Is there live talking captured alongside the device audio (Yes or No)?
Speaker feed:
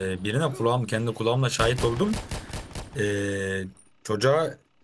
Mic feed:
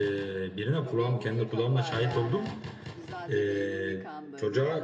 Yes